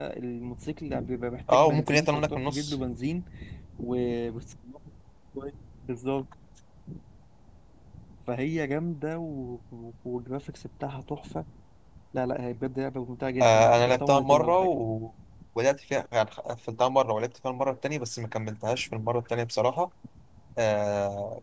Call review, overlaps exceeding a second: present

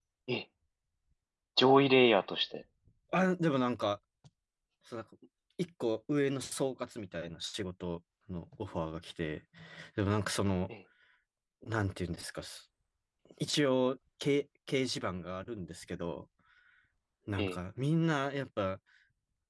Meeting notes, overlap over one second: none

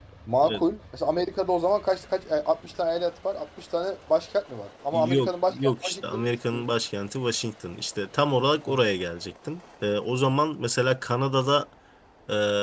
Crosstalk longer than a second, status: present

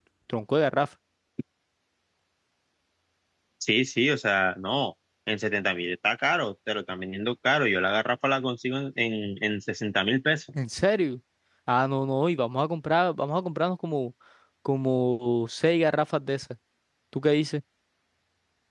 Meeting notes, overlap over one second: none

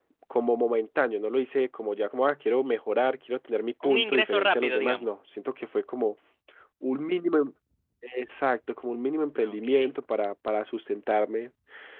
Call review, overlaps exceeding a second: present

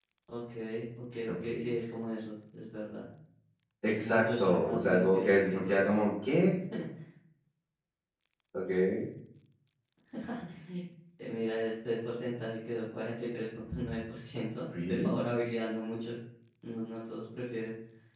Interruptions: present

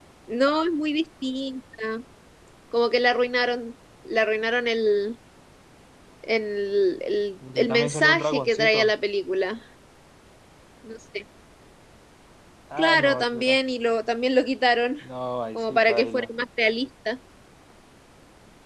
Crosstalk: present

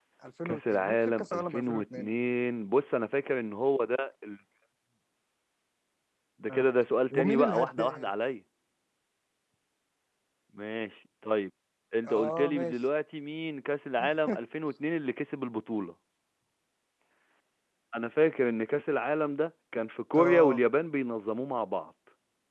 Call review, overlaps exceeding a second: present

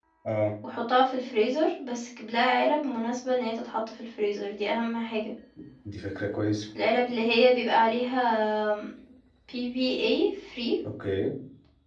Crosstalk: none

